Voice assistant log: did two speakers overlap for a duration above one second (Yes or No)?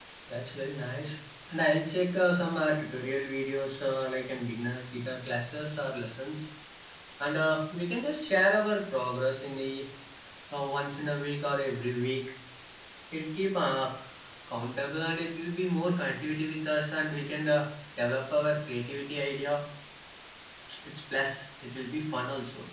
No